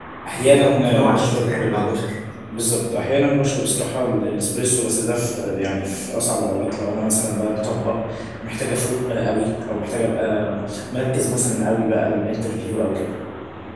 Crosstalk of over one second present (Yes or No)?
Yes